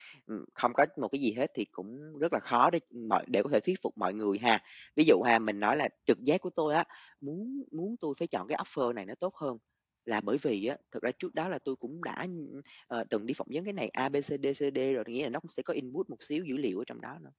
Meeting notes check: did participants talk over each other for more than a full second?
No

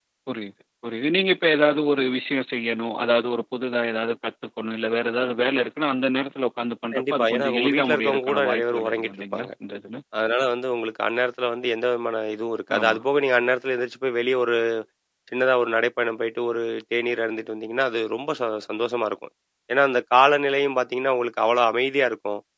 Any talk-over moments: Yes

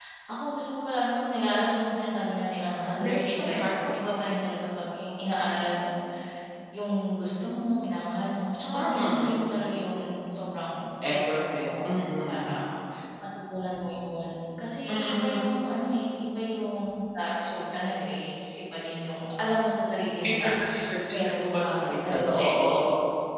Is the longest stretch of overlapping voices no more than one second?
No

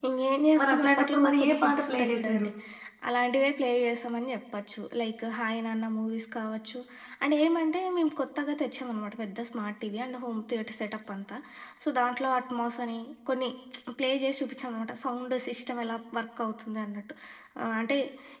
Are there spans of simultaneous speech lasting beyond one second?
Yes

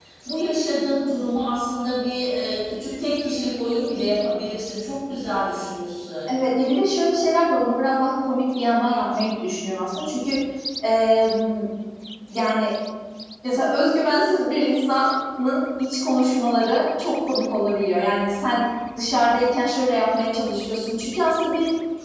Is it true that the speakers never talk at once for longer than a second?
Yes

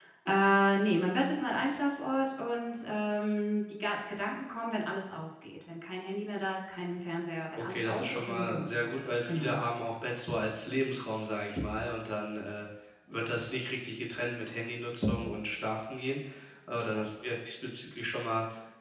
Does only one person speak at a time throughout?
No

